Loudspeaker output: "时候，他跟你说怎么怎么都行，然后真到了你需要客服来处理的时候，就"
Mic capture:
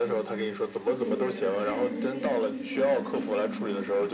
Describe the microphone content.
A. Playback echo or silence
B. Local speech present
B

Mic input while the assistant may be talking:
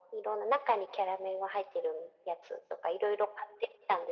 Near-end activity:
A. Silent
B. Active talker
A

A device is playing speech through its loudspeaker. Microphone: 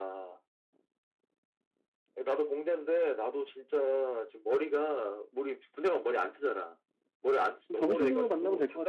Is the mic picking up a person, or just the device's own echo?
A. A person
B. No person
A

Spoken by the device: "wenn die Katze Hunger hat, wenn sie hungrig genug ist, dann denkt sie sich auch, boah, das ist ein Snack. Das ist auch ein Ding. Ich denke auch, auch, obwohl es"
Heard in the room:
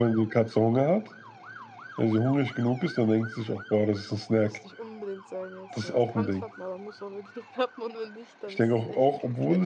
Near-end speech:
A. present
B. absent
A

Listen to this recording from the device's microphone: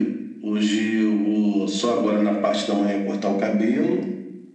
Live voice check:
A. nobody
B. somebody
A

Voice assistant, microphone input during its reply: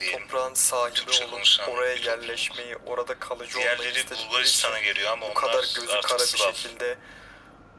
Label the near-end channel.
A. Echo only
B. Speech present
A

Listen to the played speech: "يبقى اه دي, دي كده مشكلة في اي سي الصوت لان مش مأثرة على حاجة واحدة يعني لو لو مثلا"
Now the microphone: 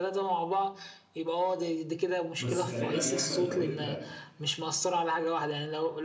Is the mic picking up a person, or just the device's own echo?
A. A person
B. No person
A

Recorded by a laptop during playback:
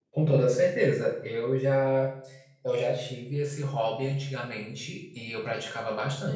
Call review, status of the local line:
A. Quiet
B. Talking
B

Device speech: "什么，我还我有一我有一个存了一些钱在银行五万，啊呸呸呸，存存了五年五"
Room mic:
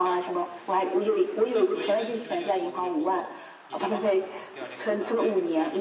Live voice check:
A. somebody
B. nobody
A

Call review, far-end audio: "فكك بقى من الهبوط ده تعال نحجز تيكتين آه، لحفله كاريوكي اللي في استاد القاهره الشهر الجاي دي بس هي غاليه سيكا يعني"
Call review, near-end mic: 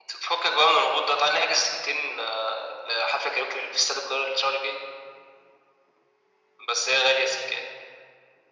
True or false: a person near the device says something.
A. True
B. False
B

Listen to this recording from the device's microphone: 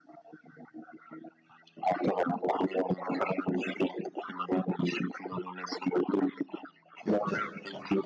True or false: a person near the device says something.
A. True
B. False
A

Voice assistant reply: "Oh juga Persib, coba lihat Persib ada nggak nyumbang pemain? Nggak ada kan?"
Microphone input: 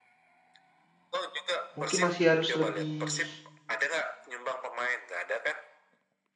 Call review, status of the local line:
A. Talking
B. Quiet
A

